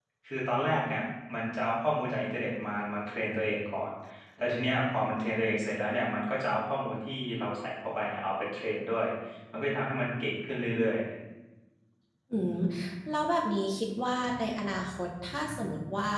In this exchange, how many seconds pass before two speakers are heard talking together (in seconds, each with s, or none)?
none